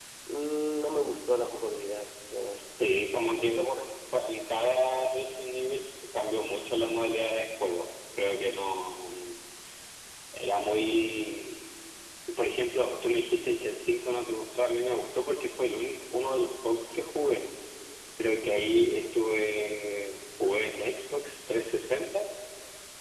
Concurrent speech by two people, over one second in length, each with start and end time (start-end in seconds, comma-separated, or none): none